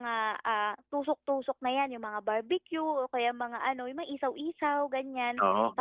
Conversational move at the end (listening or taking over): listening